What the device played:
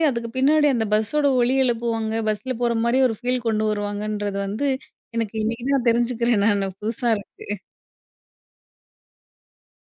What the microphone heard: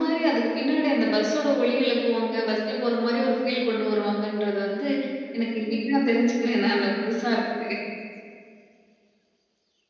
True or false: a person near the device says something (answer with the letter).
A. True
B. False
B